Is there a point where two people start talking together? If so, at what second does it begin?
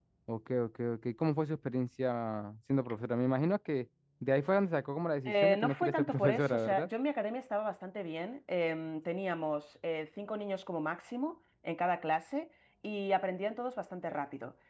5 s

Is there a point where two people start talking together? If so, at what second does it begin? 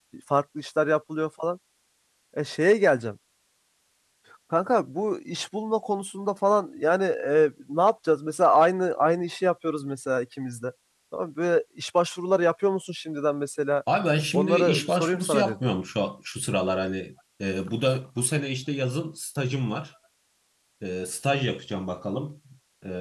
14 s

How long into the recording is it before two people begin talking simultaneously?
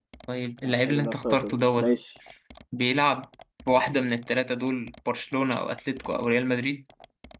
1 s

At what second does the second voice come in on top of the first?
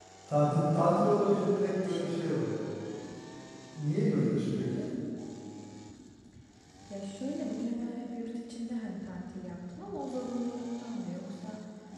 1 s

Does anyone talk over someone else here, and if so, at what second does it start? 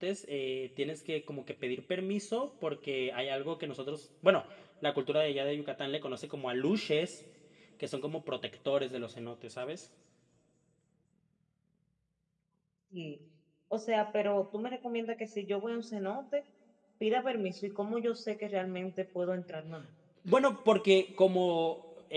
none

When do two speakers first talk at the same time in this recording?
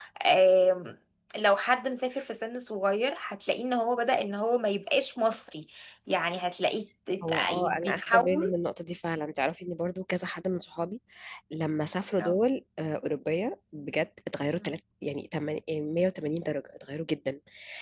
7 s

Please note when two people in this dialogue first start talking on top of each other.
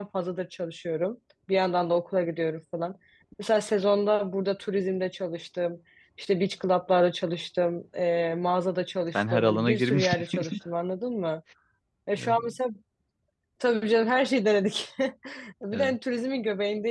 9 s

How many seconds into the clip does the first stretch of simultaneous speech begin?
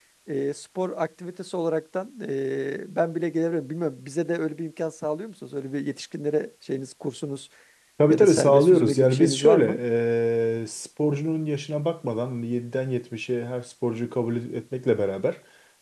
8 s

